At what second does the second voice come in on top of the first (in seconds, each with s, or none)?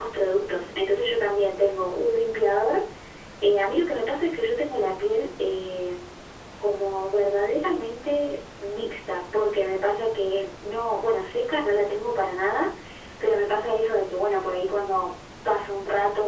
none